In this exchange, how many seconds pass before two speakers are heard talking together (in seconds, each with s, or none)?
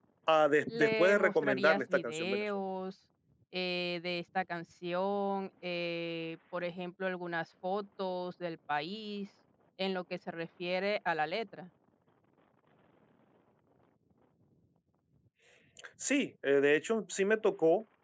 0.7 s